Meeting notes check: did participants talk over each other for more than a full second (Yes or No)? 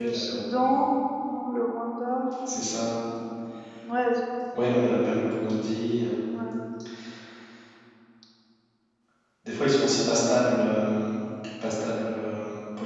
No